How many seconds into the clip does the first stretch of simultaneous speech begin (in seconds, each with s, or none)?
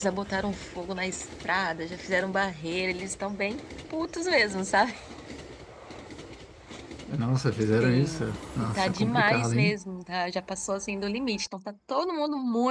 7.8 s